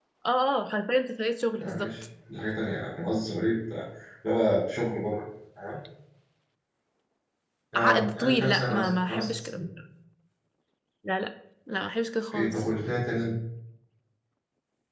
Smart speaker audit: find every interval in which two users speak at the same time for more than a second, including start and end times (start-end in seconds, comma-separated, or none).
7.8-9.6